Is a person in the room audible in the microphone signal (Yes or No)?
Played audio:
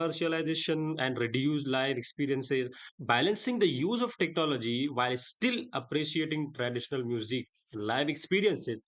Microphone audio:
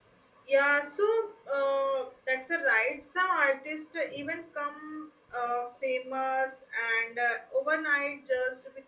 Yes